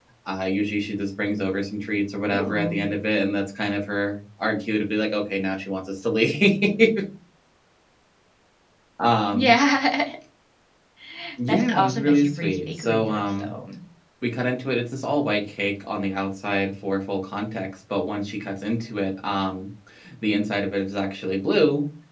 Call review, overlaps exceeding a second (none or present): present